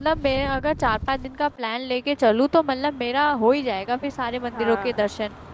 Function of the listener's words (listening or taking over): taking over